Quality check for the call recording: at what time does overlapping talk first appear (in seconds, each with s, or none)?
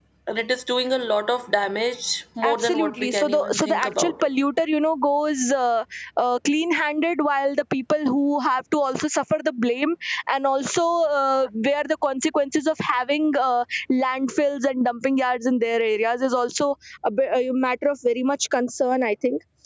2.4 s